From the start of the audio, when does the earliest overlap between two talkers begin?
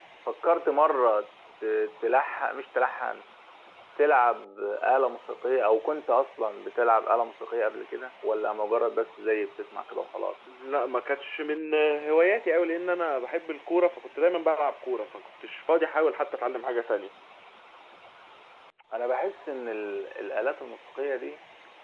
none

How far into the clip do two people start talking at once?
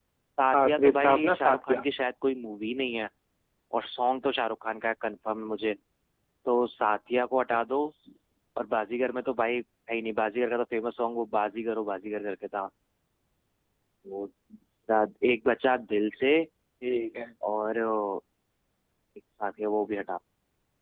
0.6 s

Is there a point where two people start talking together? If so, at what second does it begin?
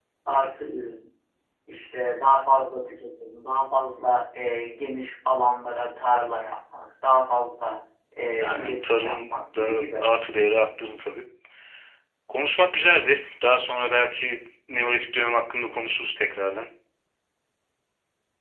8.4 s

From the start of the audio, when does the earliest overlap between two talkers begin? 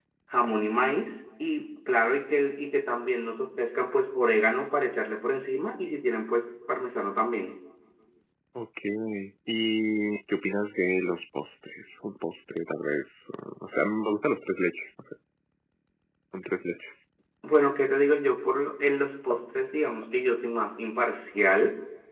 none

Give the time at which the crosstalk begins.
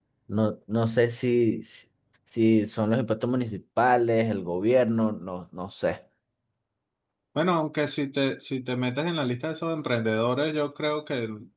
none

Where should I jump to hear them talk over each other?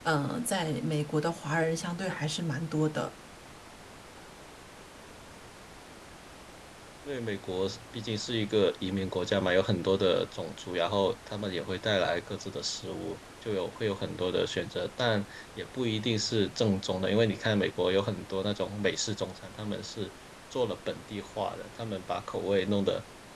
none

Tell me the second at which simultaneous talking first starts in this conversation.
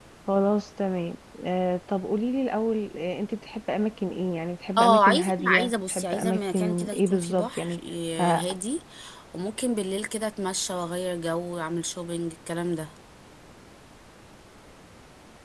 4.8 s

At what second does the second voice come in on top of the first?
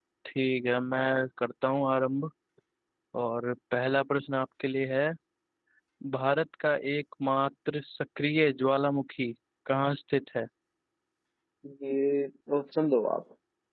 none

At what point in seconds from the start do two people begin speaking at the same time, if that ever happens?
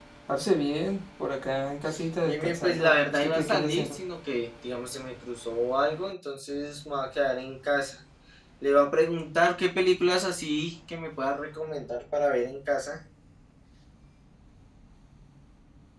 2.2 s

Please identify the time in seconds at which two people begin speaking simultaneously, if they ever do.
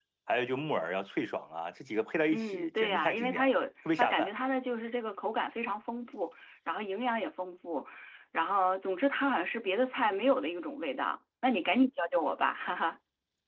2.3 s

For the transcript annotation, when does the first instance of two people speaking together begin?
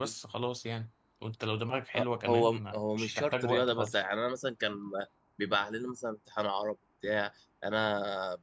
1.9 s

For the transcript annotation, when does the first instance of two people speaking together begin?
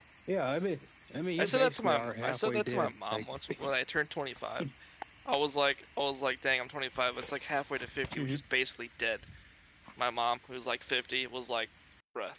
1.4 s

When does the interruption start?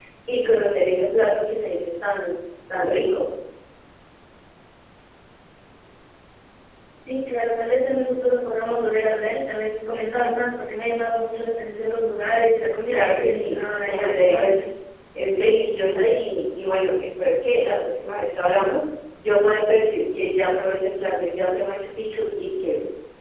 12.9 s

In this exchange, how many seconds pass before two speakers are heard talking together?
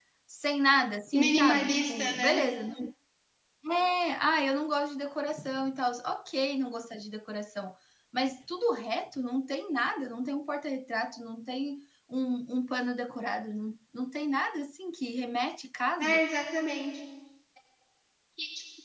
1.1 s

